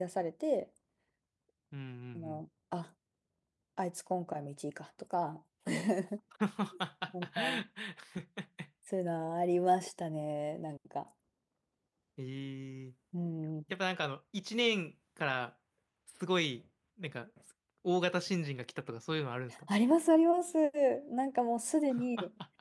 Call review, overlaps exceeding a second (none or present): none